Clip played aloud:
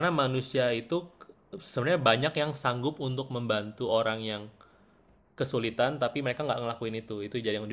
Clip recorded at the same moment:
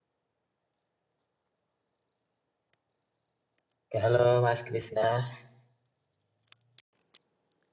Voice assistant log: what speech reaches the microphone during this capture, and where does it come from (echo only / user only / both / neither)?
user only